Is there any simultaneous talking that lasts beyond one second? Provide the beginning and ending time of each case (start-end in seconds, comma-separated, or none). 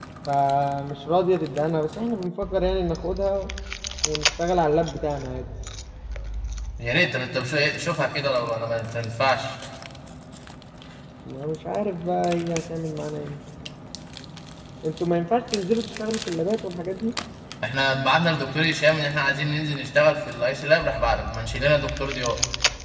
none